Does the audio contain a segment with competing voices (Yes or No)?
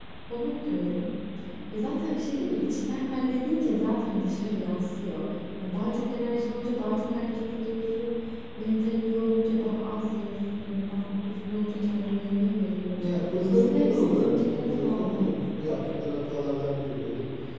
Yes